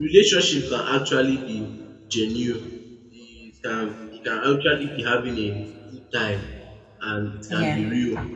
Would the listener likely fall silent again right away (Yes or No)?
Yes